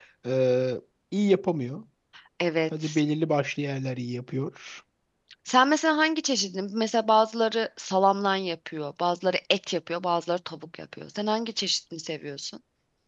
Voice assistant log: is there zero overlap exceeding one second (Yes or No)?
Yes